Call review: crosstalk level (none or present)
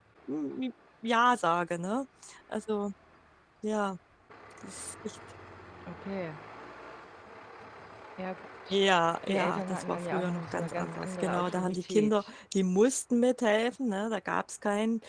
present